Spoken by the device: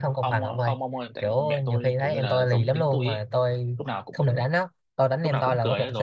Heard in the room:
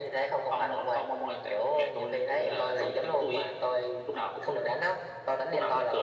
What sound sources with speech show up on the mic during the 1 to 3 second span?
echo only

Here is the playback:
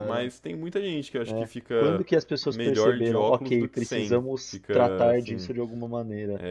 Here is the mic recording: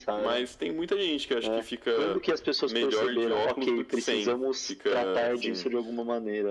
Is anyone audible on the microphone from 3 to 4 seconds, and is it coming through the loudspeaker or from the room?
echo only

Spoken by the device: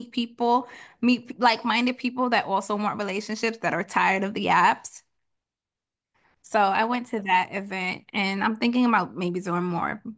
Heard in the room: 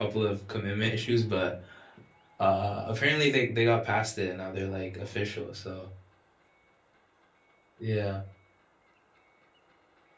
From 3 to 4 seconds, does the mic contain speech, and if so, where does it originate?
user only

